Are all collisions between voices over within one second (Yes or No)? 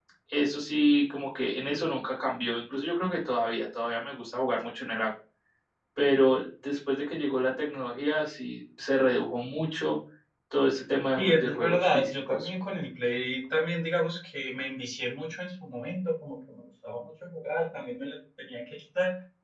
No